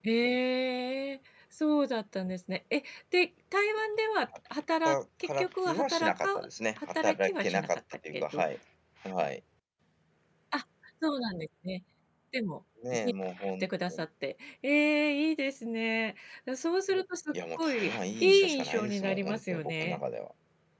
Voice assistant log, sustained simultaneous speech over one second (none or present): present